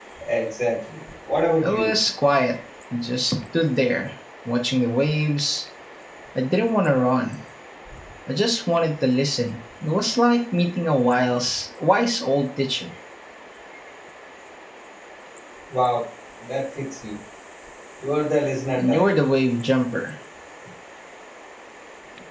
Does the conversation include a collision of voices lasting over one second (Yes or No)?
No